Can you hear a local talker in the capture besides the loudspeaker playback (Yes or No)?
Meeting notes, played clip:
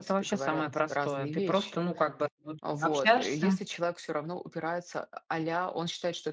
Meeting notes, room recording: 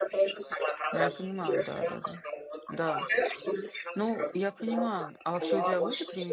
Yes